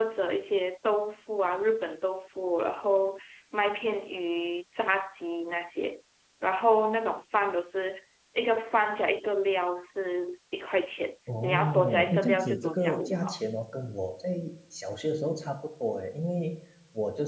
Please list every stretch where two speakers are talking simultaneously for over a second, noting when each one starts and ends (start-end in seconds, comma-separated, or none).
11.4-13.2